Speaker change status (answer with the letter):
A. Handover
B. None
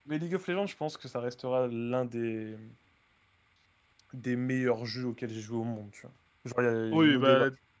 A